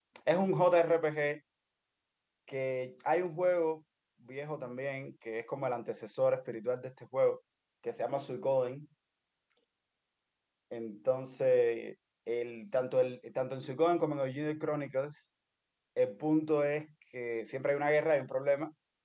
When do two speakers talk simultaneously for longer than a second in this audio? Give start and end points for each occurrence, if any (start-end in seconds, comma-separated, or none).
none